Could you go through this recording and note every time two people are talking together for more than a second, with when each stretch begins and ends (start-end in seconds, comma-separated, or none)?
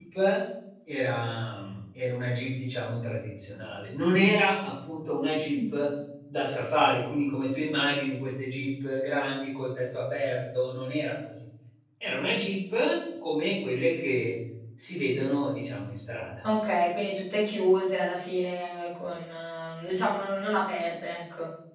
none